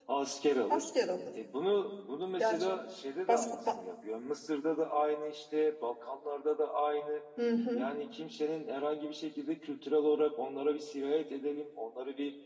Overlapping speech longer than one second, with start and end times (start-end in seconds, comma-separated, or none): none